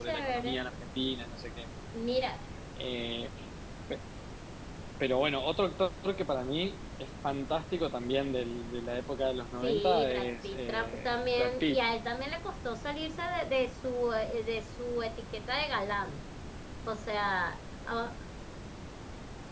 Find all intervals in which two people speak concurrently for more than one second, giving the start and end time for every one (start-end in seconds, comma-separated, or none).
9.6-11.8